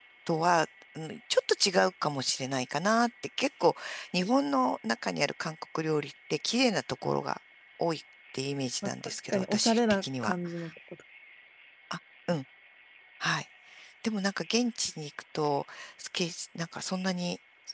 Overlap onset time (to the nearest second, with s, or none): 9 s